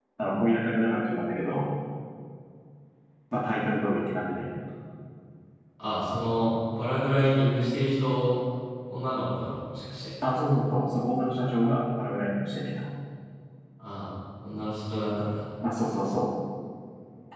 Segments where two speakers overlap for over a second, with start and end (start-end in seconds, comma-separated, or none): none